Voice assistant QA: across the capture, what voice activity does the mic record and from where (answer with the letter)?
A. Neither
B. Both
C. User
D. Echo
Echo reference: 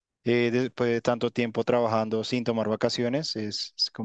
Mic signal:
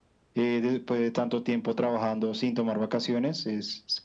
D